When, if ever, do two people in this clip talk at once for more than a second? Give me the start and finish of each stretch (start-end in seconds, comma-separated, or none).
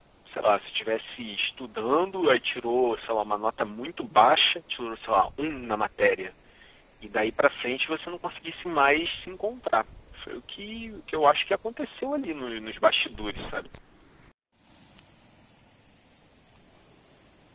none